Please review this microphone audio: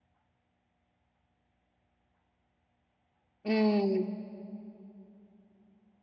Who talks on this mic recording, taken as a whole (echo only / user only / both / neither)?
user only